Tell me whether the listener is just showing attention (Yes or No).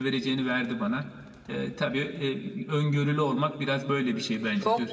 No